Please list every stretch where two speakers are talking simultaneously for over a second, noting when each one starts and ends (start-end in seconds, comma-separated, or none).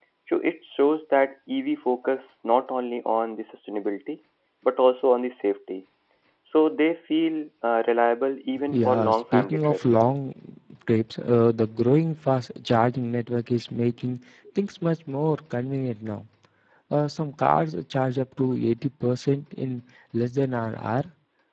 8.7-10.0